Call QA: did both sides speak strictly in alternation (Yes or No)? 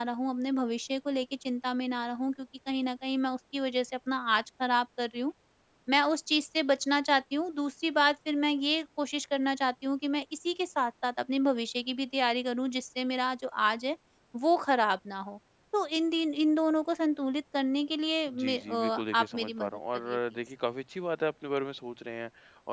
No